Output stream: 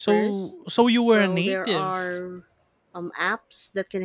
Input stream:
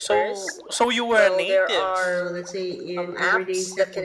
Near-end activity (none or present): present